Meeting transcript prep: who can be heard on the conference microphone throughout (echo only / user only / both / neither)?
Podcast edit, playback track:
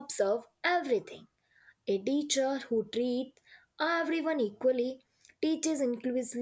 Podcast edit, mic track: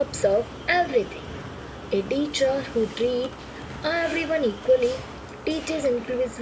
echo only